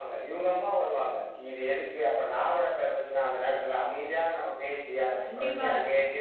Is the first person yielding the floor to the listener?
No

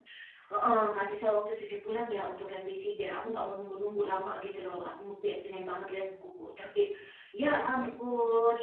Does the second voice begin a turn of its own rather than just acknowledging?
No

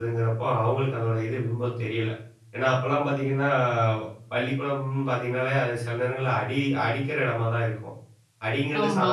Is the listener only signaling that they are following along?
Yes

